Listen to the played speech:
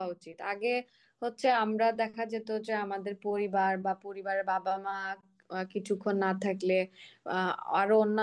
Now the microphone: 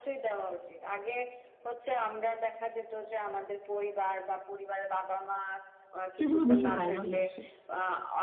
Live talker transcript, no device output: সেগুলো বেশি ভাইরাল হচ্ছে

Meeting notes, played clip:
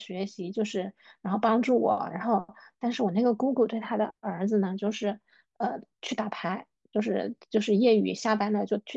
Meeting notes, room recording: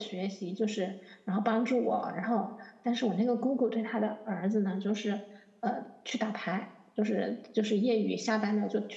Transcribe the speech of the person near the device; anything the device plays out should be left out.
none

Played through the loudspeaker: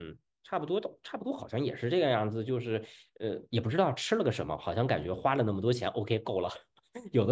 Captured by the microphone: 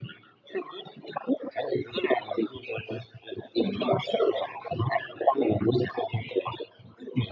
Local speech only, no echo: 很好。

